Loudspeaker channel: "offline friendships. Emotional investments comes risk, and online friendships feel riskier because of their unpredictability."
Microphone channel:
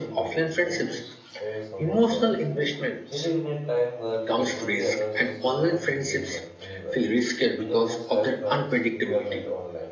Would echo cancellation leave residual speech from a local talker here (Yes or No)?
Yes